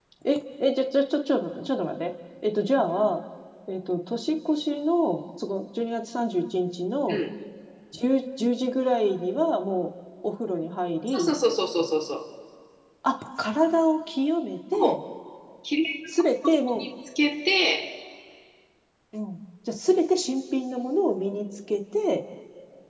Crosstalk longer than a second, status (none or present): none